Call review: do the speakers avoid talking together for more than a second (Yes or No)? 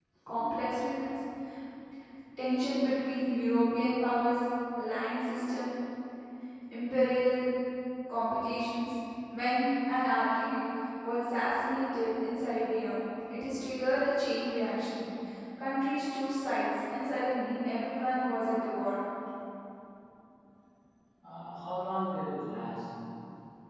Yes